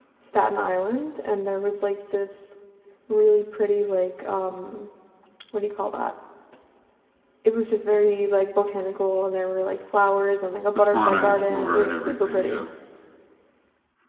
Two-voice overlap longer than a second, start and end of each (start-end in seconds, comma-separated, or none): 10.7-12.7